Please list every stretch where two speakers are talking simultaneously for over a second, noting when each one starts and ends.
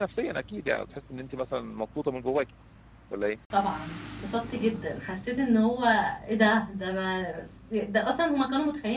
none

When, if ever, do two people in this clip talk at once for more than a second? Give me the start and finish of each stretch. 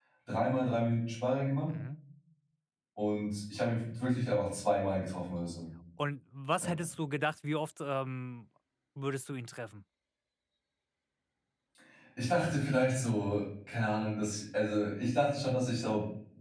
none

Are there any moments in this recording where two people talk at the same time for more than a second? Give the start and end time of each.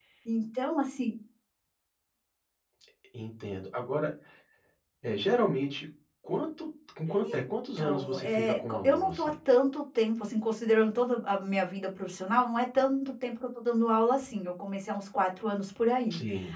7.8-9.3

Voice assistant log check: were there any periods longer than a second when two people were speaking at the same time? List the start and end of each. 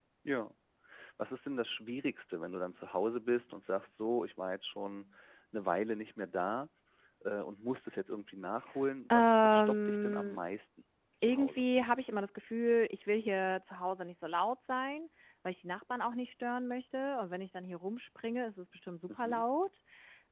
9.1-10.4

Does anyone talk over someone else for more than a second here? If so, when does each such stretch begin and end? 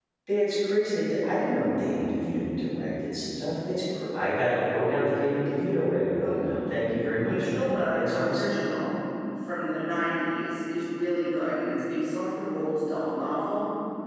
7.2-8.4

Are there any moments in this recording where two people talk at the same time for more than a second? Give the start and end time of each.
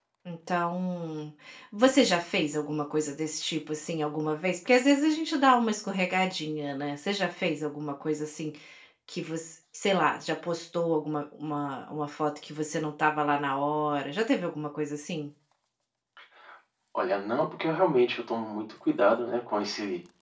none

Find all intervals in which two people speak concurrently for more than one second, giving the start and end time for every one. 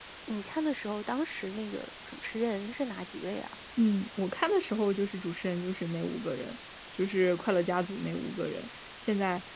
none

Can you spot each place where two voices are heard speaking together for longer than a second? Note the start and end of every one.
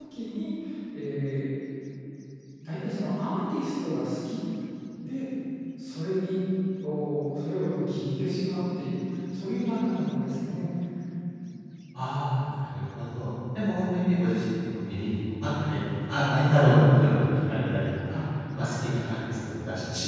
none

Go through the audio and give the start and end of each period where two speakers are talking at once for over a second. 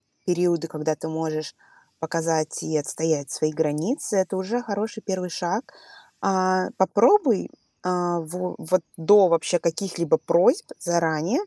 none

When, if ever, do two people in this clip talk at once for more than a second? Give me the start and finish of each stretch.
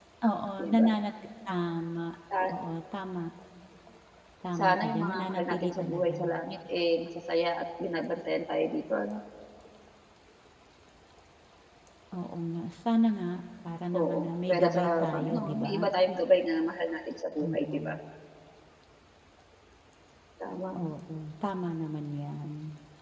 4.6-6.3, 13.9-15.9

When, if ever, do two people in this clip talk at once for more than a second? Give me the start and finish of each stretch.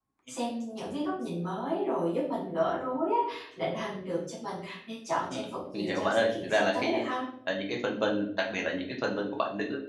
5.3-7.0

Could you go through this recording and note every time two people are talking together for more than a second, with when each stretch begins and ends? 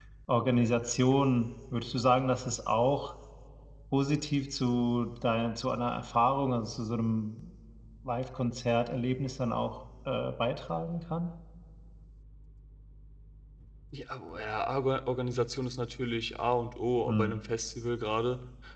none

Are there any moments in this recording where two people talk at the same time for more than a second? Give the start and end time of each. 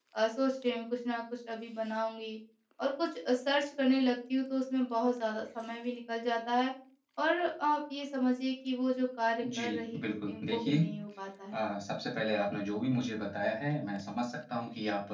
9.4-10.8

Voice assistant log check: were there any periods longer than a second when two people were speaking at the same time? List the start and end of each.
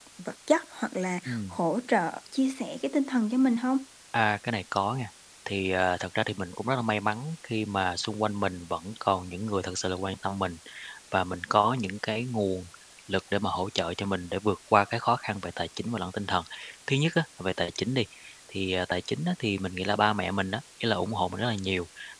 none

